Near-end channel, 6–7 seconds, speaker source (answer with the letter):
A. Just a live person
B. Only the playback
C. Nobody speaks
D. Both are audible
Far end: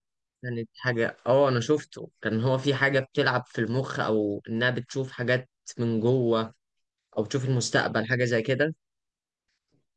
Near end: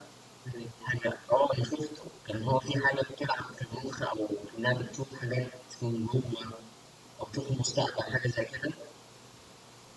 B